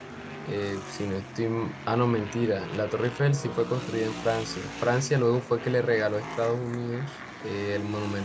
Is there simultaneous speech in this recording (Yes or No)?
No